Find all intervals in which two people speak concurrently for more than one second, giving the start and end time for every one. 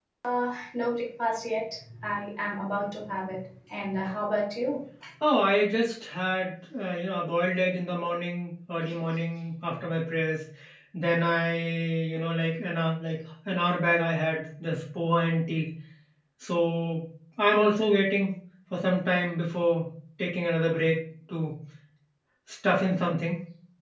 none

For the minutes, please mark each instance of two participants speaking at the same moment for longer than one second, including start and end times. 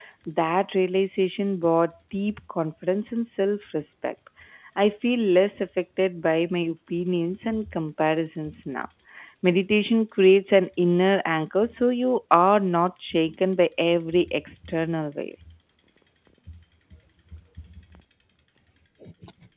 none

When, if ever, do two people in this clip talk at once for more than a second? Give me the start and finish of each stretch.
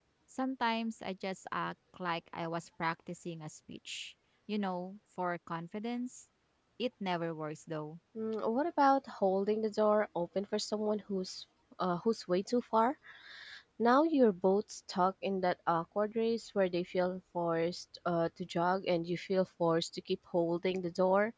none

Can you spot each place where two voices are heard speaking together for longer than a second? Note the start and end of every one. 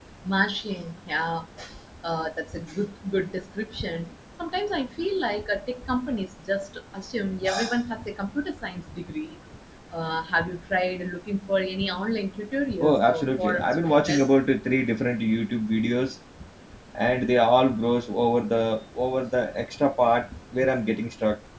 12.8-14.3

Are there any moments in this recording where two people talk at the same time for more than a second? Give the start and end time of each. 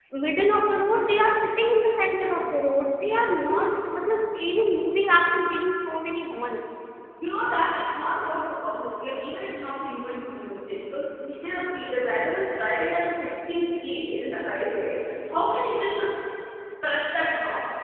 none

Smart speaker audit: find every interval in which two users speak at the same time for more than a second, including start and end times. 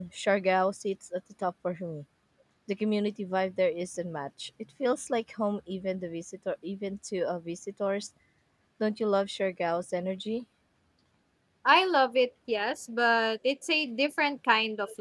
none

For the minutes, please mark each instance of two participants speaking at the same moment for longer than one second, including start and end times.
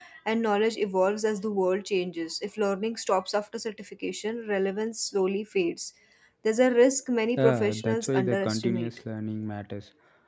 7.4-8.9

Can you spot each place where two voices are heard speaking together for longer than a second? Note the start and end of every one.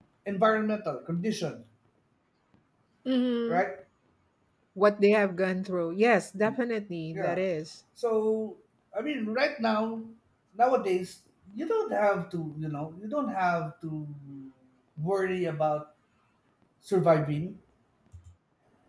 none

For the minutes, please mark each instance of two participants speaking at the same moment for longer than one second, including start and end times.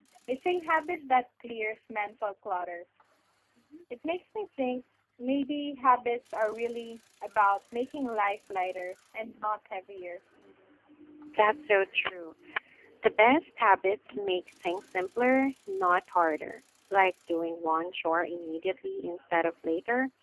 none

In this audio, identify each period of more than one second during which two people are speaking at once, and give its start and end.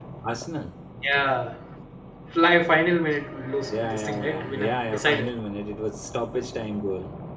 3.7-5.3

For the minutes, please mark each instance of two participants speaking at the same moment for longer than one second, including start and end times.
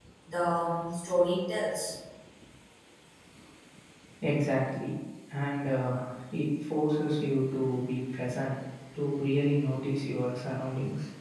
none

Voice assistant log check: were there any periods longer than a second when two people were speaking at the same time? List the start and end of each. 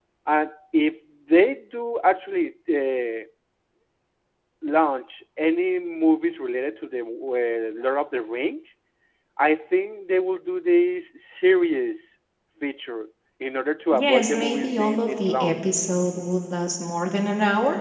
14.0-15.5

